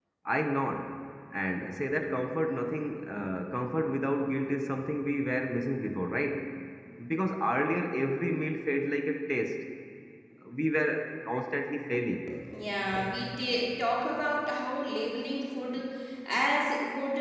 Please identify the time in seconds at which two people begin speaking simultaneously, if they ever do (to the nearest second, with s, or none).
none